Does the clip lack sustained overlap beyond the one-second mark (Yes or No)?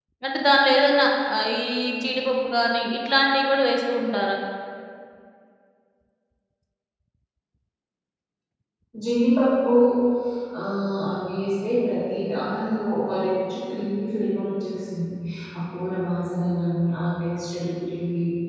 Yes